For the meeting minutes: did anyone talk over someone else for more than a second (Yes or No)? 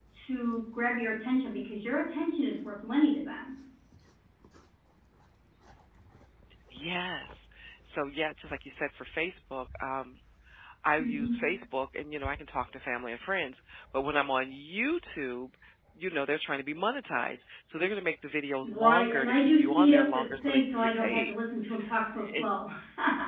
Yes